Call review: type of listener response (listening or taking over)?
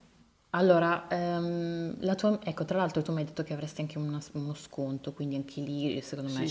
taking over